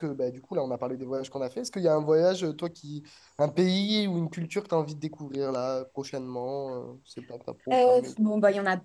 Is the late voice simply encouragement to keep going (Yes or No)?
No